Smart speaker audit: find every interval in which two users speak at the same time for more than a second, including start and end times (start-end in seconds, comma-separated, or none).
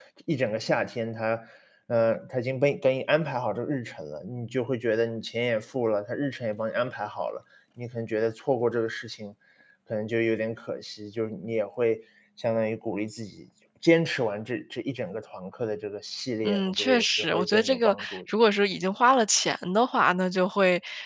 16.4-18.2